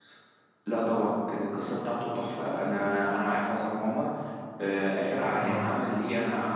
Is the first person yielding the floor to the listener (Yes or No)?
No